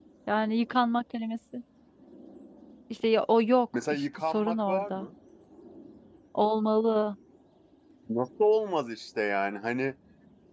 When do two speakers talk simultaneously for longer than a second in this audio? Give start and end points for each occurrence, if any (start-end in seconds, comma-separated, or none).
3.7-5.1